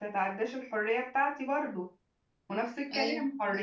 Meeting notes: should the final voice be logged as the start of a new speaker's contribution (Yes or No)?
No